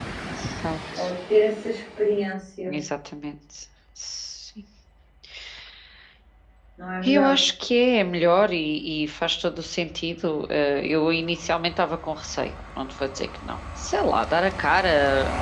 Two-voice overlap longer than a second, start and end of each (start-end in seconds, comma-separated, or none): none